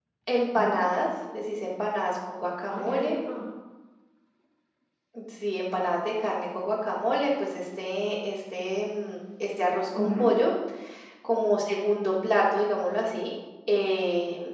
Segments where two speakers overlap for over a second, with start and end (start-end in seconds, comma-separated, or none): none